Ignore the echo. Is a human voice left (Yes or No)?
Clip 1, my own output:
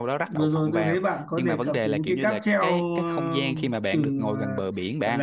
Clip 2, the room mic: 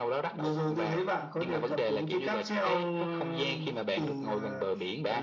No